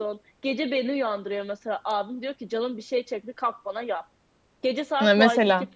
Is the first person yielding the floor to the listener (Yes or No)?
No